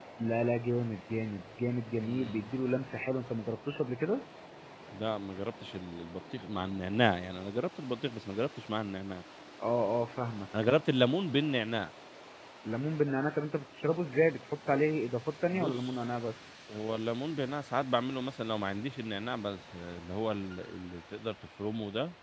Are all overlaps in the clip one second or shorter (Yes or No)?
Yes